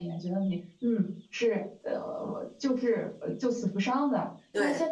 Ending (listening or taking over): listening